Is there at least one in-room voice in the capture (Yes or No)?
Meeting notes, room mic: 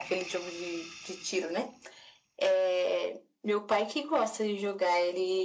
No